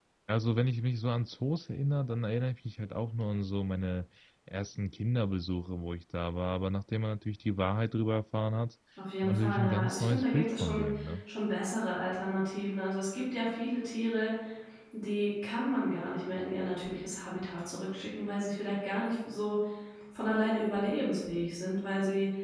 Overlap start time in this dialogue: 9.2 s

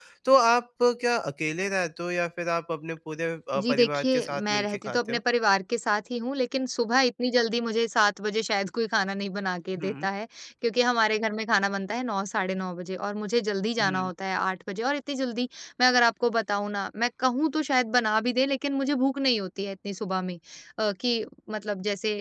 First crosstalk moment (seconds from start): 3.6 s

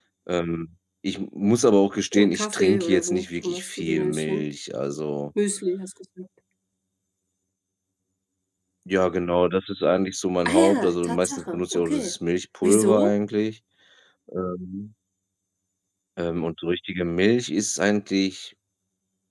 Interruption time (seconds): 2.1 s

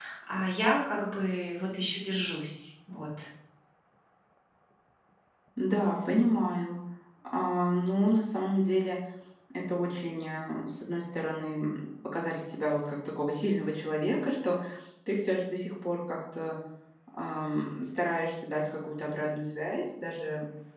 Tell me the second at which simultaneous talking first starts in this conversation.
none

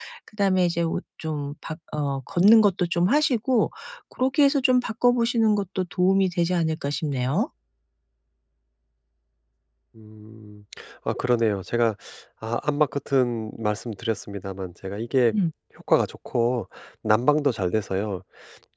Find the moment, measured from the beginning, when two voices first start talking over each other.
none

